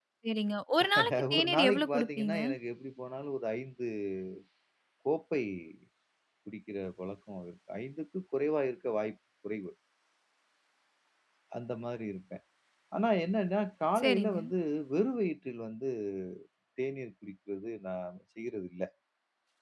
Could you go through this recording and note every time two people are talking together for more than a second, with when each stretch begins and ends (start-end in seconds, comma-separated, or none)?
1.0-2.4